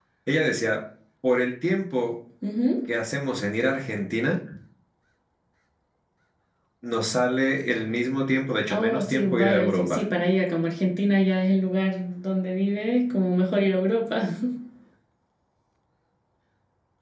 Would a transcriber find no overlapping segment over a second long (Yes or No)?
No